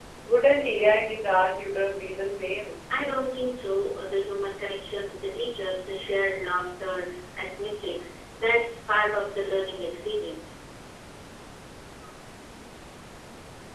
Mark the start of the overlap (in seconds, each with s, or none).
none